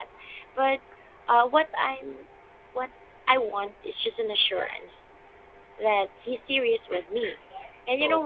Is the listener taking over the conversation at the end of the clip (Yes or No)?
No